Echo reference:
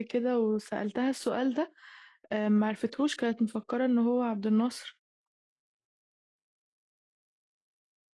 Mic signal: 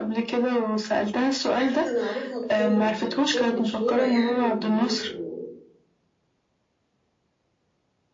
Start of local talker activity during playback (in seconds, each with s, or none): 1.5 s